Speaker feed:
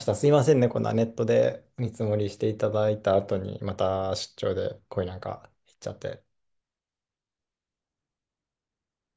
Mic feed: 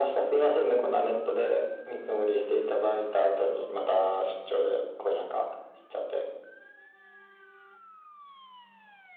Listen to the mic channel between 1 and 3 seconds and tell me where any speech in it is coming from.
echo only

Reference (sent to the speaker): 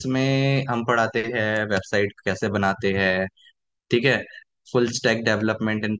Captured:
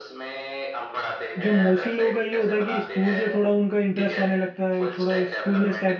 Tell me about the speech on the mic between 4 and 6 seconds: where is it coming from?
both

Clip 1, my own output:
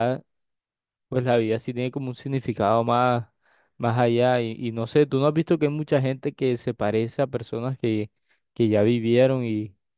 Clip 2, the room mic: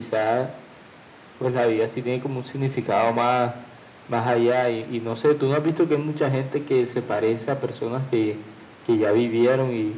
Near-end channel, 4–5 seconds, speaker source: echo only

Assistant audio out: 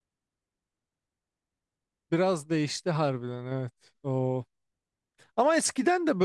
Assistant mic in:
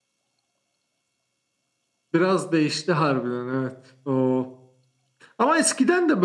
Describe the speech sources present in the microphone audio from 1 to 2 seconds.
neither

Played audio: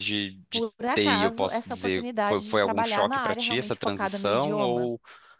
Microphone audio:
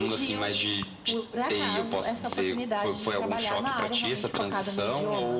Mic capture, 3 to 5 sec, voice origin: echo only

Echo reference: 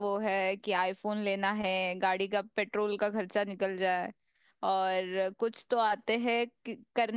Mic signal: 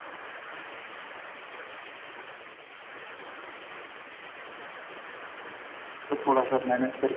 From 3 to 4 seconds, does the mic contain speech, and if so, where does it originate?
neither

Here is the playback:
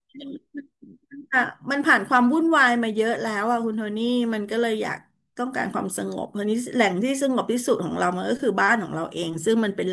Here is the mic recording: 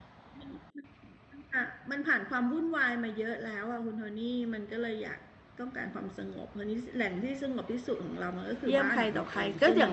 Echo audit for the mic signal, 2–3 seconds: echo only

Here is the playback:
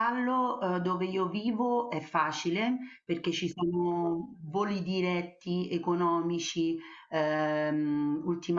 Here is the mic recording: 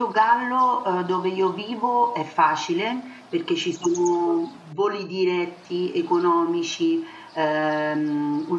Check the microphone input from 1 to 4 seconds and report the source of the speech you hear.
echo only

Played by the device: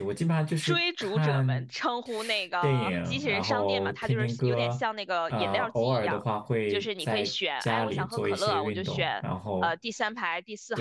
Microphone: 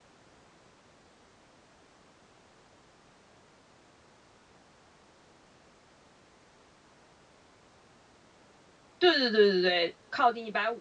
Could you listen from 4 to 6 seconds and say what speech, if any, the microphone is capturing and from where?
neither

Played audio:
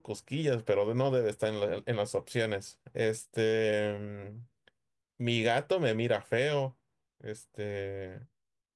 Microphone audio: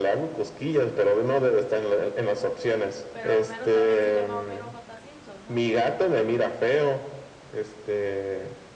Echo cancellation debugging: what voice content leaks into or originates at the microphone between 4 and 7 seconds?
both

